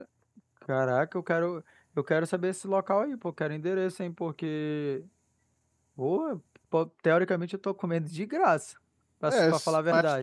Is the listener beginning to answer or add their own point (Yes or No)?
Yes